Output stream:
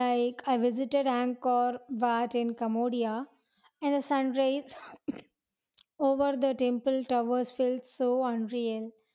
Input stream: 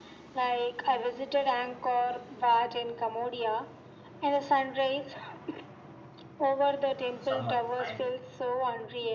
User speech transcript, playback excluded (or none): uh, someone to find it.